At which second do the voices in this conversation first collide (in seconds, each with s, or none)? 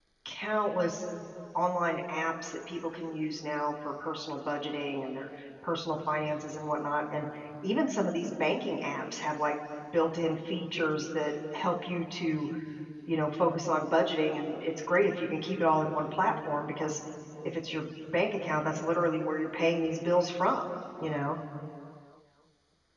none